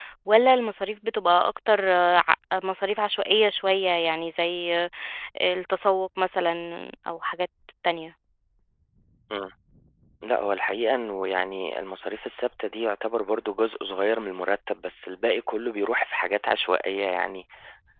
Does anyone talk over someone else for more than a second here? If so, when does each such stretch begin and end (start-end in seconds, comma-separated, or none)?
none